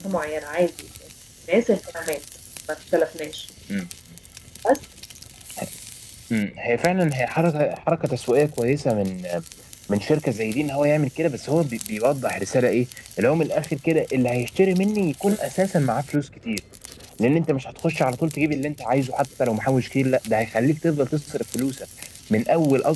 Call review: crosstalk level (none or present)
none